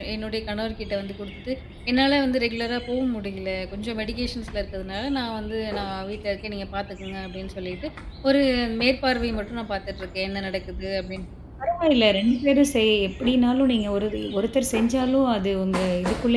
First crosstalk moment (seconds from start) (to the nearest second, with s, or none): none